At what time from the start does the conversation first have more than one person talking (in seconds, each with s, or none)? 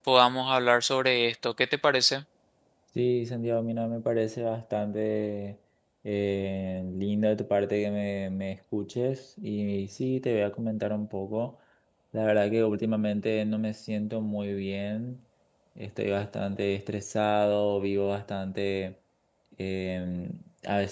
none